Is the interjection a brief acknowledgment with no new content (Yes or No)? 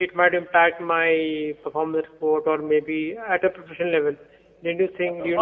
No